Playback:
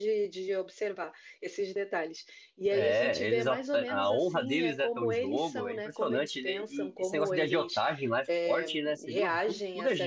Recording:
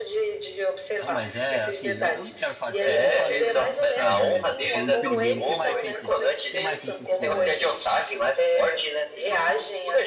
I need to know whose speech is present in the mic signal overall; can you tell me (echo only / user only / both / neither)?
both